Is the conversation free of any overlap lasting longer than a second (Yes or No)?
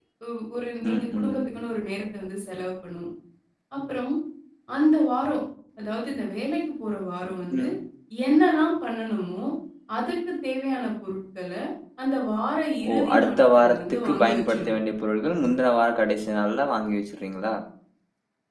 No